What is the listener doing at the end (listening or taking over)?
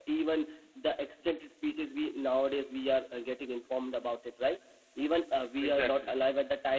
listening